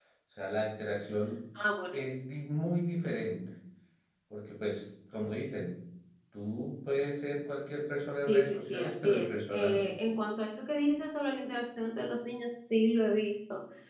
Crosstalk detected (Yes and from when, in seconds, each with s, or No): Yes, from 8.2 s